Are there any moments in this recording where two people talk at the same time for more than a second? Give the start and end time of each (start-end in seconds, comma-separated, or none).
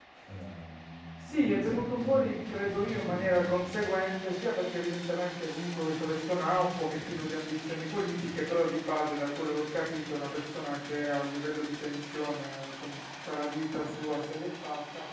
1.2-3.9